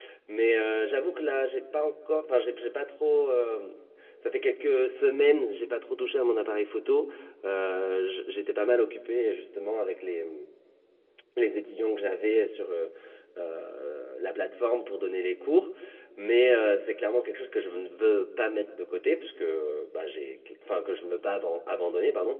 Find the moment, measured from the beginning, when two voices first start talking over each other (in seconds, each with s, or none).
none